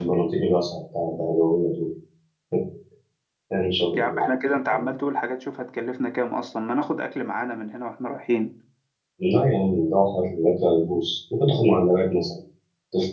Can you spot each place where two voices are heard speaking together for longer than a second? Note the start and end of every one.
none

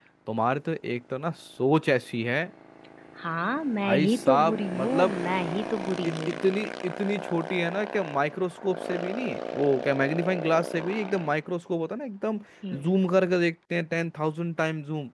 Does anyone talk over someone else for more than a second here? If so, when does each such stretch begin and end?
3.8-5.2

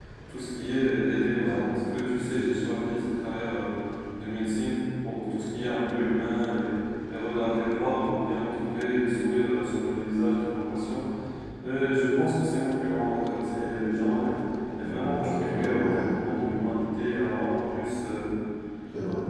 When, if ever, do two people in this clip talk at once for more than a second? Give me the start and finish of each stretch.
14.8-16.2

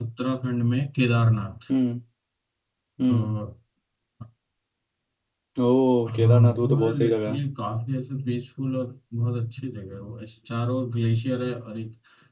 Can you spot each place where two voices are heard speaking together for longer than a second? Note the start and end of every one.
6.2-7.4

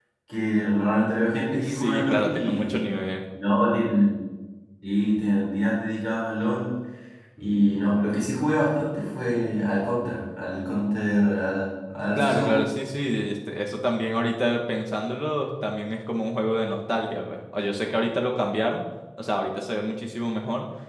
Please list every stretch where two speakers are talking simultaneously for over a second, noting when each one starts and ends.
1.5-2.7

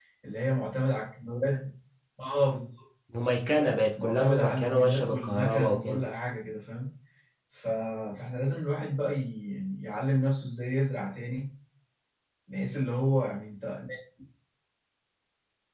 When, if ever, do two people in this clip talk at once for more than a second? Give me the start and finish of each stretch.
4.0-6.1

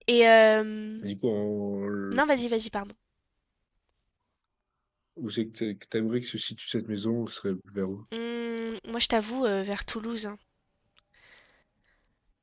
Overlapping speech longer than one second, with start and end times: none

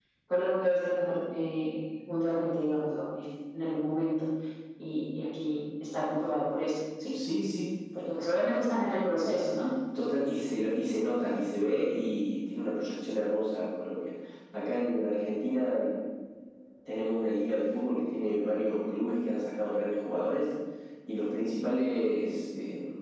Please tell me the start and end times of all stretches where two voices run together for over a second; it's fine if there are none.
none

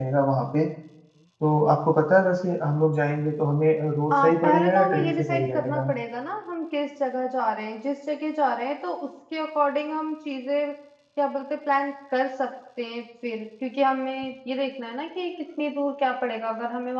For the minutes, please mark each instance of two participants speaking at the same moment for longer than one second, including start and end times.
4.1-5.9

